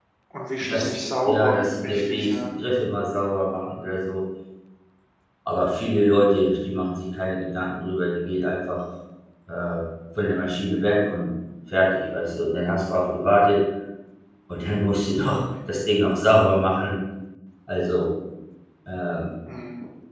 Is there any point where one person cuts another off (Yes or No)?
Yes